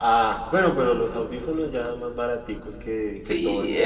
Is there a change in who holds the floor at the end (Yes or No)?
Yes